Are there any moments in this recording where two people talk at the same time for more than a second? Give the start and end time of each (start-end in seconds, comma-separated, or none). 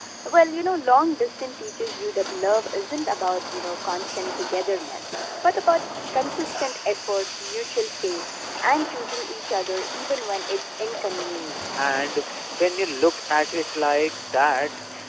none